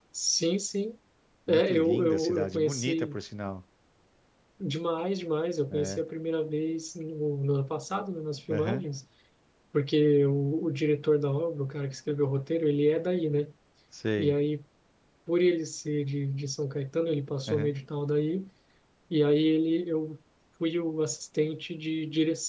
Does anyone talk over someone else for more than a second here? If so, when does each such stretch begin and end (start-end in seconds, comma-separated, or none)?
1.5-3.2